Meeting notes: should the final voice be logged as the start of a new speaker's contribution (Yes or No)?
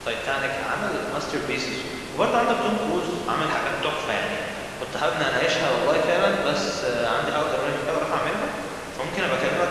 No